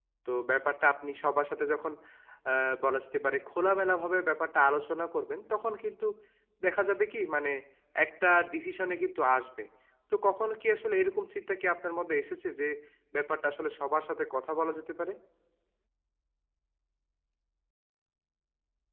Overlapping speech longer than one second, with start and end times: none

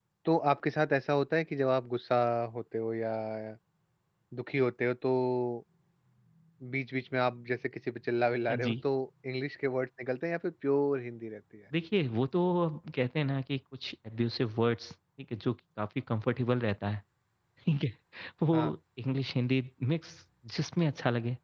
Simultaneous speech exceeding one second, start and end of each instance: none

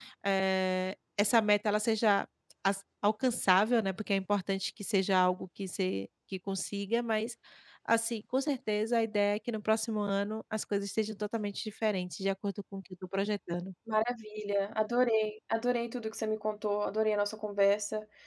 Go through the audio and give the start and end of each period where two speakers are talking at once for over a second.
none

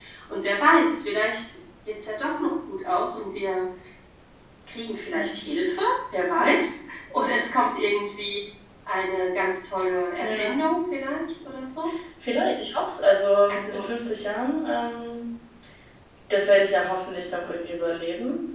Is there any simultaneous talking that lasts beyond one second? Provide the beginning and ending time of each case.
none

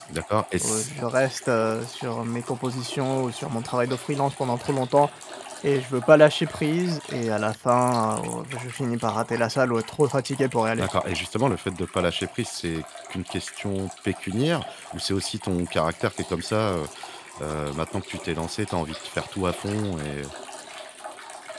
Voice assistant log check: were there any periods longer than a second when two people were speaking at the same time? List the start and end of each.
none

